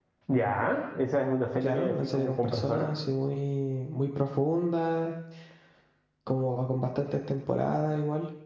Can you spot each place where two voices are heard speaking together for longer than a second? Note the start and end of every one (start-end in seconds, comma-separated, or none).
1.6-2.9